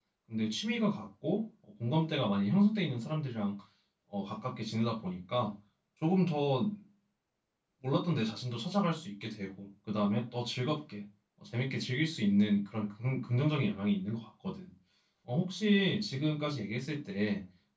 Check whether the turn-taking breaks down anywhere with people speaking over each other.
No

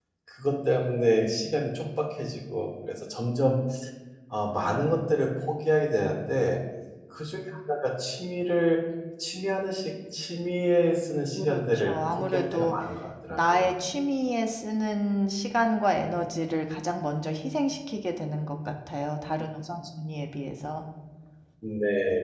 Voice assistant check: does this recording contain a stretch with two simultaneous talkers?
Yes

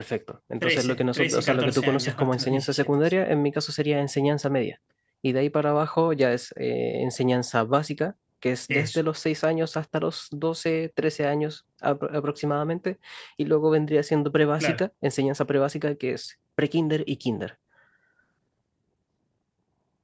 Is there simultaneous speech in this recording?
Yes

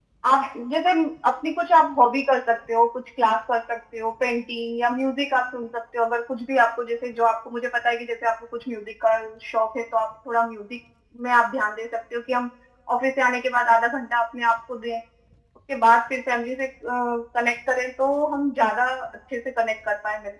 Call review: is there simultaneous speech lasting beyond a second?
No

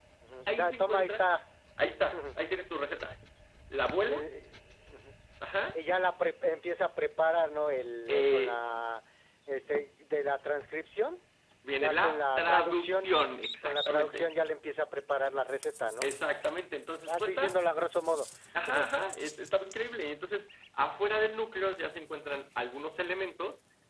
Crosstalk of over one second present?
Yes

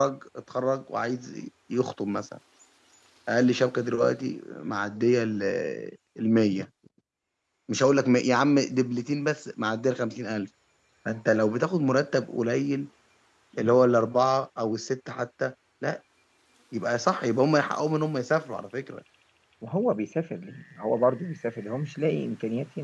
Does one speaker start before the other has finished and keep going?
No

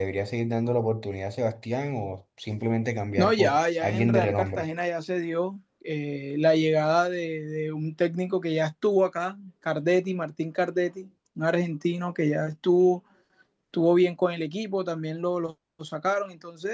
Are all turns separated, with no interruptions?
No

